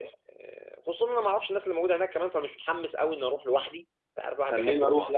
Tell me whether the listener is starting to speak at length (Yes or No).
Yes